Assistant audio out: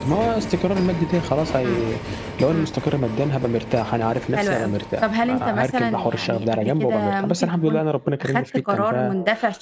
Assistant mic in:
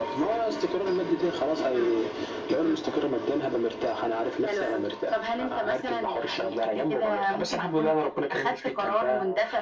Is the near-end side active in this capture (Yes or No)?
Yes